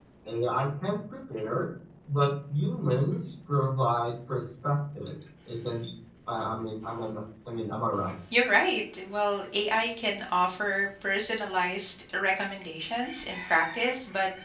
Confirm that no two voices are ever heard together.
Yes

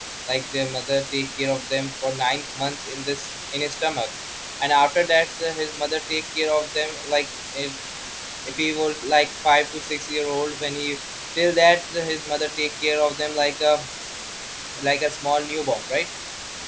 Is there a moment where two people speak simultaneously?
No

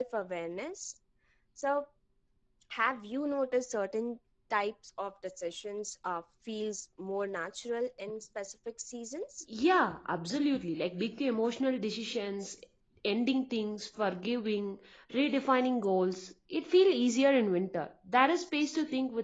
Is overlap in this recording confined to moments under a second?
Yes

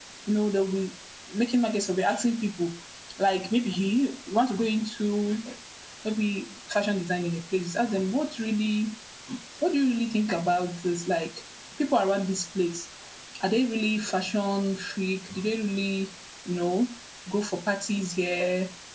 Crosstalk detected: No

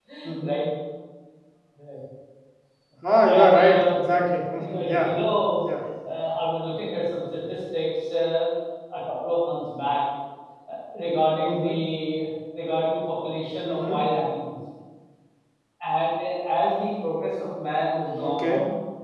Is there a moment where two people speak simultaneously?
Yes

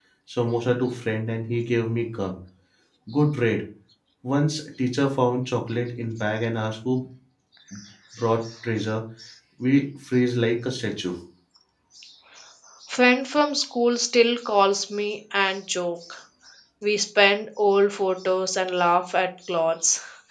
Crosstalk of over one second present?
No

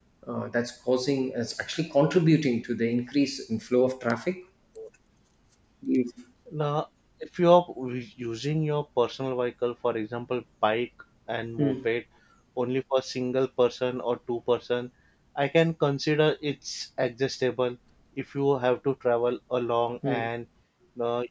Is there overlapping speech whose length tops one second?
No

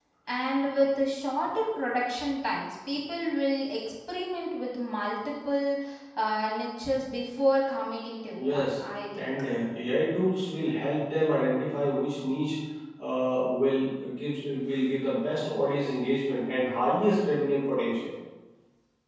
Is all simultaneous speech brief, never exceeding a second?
Yes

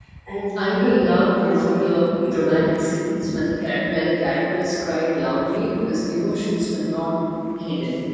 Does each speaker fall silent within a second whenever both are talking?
No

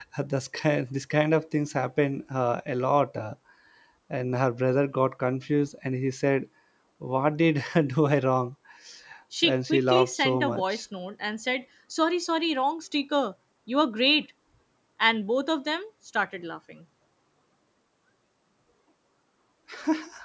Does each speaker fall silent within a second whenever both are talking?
No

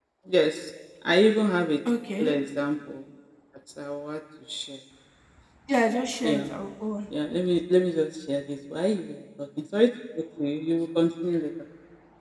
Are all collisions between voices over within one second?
Yes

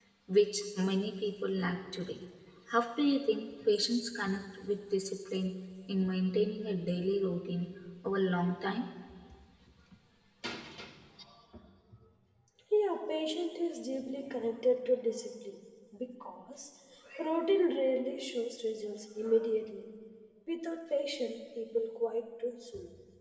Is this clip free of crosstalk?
Yes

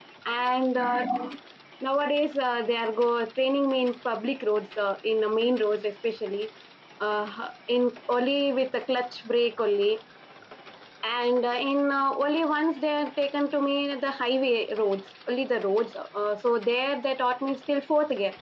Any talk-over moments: No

